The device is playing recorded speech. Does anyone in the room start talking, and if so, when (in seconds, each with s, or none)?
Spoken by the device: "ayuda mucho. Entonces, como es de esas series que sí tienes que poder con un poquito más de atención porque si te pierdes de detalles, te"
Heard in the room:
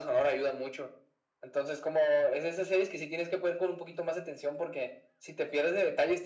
none